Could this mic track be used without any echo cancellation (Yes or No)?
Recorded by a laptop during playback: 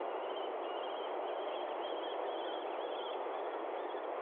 Yes